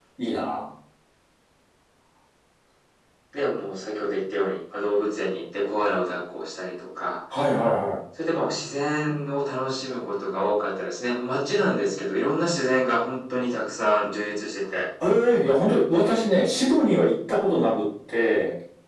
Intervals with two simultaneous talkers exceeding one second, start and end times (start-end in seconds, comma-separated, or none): none